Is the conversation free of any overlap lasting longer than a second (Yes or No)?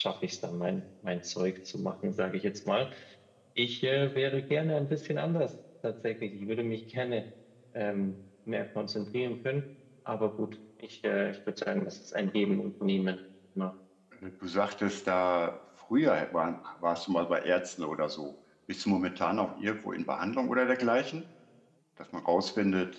Yes